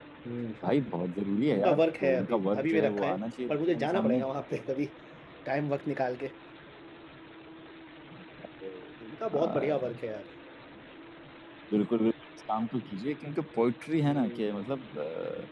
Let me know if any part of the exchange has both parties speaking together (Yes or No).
Yes